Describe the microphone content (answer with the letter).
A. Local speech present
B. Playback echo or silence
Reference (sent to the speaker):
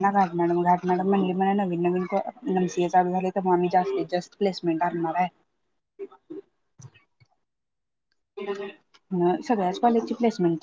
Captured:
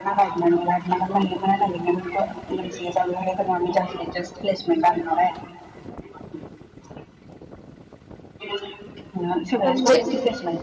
A